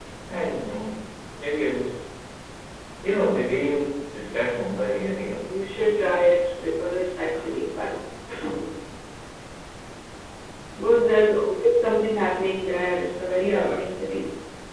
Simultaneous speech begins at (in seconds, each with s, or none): 4.9 s